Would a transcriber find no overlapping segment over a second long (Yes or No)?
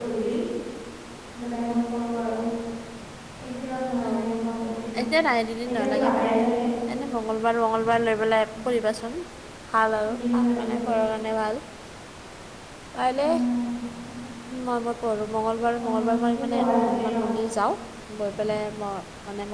No